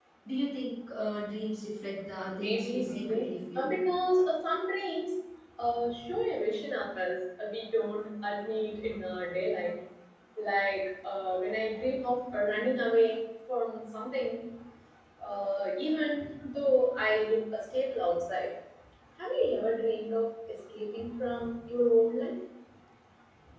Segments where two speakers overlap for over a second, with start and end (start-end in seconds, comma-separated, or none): 2.3-3.7